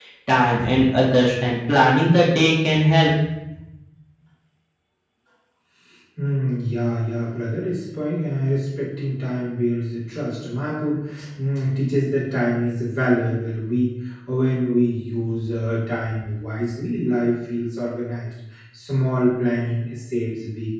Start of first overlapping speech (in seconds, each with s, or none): none